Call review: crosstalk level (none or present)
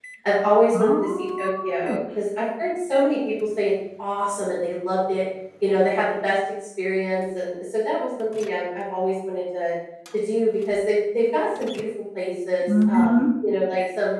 present